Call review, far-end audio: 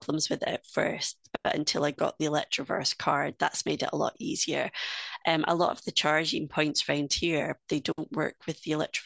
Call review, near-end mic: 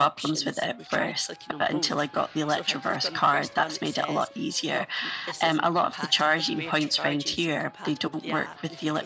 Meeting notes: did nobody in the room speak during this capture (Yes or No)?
No